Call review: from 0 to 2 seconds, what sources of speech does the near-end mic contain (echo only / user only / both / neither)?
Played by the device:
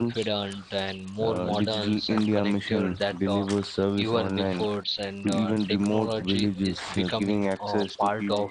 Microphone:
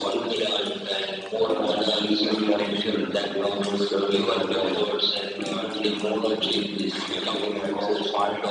echo only